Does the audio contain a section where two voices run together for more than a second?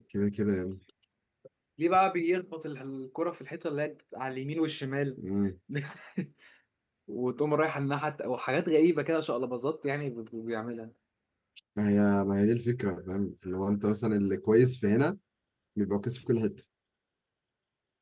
No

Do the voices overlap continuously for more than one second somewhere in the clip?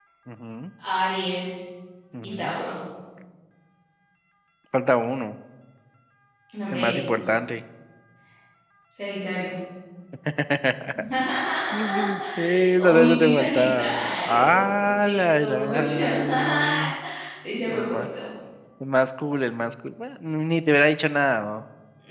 Yes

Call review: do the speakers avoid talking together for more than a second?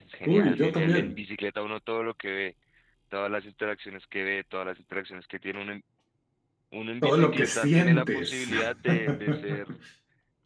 No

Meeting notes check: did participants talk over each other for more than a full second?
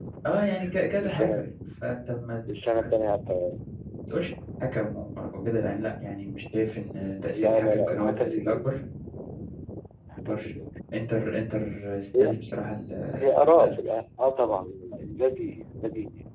Yes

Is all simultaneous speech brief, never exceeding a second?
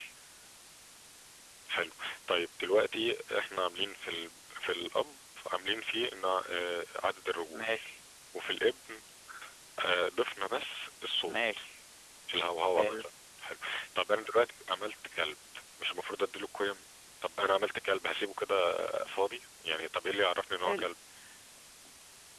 Yes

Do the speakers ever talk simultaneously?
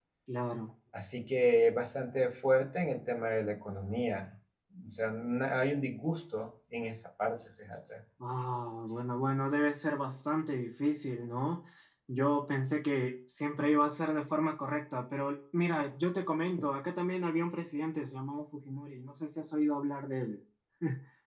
No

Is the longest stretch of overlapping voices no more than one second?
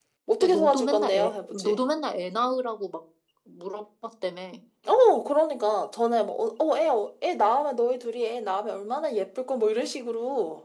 No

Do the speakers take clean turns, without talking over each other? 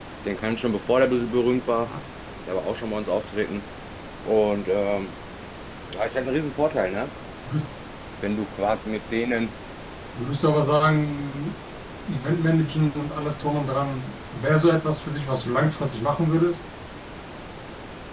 Yes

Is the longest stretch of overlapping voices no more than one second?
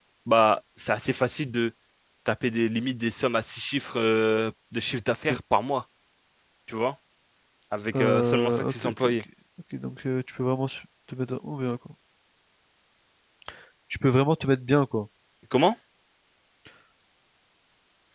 No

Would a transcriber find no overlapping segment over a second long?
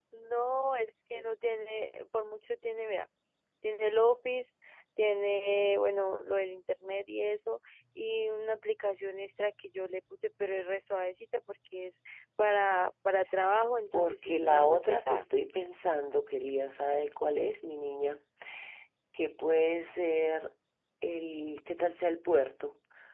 No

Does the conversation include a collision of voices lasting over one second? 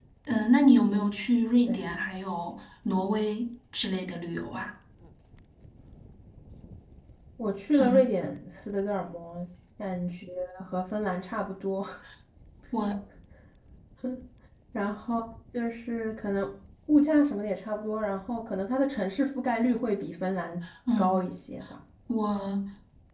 No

